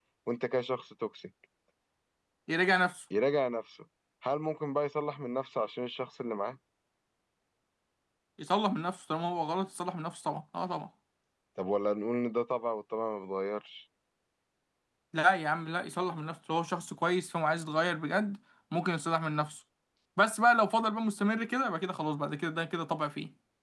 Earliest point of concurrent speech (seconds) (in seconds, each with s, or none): none